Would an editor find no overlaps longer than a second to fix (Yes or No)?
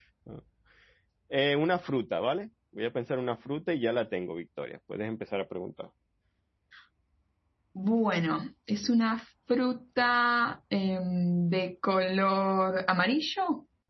Yes